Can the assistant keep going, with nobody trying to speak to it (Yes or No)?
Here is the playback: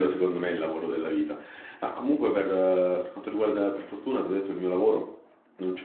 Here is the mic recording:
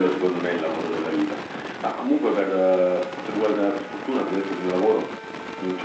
Yes